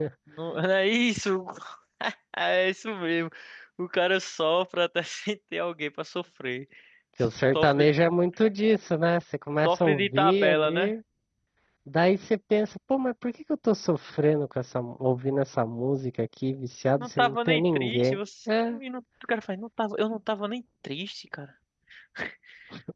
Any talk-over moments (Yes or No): Yes